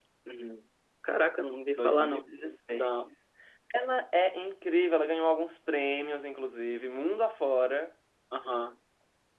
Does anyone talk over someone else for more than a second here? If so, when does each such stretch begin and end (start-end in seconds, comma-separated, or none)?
none